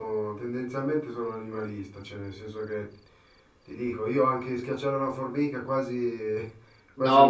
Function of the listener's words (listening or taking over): taking over